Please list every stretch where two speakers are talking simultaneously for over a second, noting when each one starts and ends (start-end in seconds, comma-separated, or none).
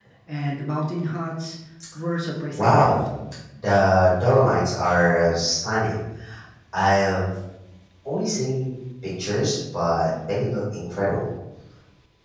none